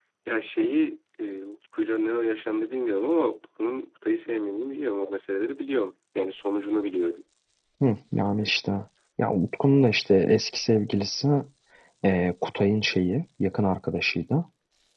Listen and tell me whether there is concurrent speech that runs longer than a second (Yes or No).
No